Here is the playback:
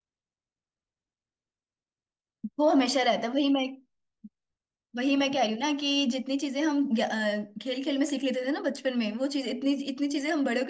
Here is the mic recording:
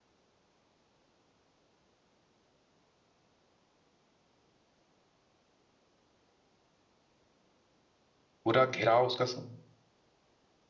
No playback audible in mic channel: Yes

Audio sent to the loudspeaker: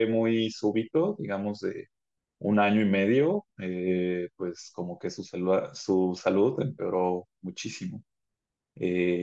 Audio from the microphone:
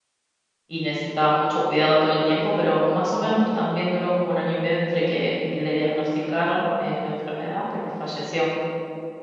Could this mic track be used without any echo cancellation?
Yes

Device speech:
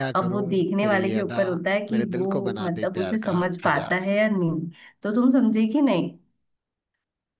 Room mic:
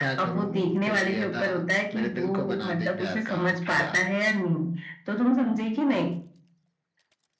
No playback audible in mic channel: No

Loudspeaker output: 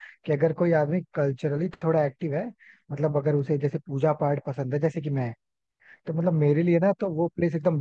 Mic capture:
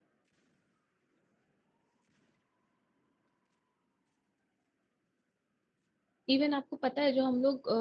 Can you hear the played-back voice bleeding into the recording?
No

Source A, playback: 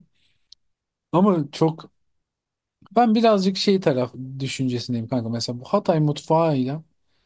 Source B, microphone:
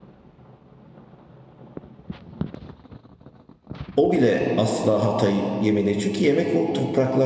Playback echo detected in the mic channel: No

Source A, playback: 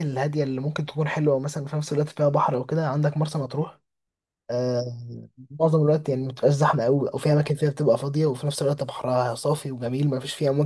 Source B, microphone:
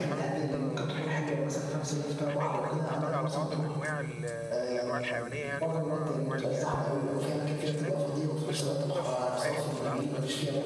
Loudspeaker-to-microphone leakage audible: Yes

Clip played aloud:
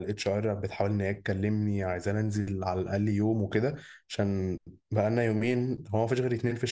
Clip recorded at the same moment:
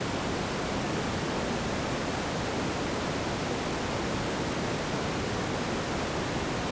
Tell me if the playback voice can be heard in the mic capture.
No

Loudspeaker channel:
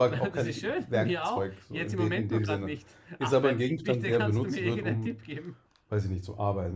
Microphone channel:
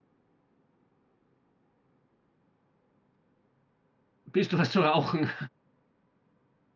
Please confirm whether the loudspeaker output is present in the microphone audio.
No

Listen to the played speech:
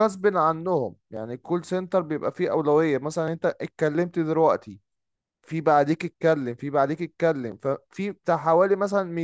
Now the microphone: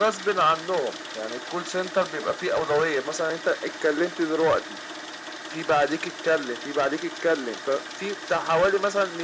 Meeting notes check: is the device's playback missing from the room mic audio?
No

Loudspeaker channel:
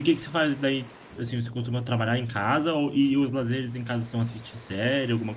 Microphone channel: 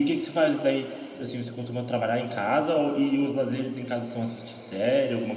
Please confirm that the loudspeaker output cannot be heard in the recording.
No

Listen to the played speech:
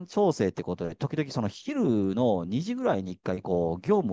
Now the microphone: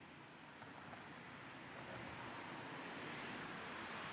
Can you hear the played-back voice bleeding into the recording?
No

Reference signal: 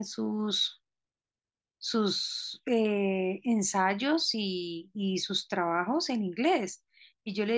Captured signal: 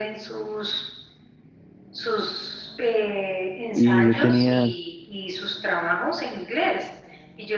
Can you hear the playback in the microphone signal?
Yes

